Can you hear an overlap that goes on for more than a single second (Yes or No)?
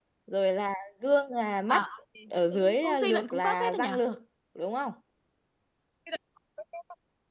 Yes